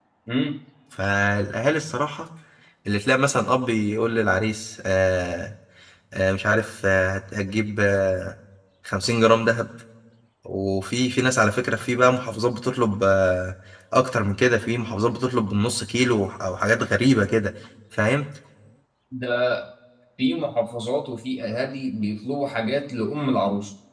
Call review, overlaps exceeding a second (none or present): none